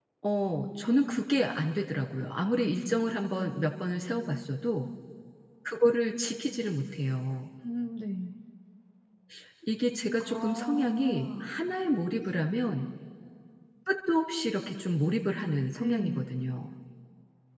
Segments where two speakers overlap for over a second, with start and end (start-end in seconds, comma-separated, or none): 10.2-11.5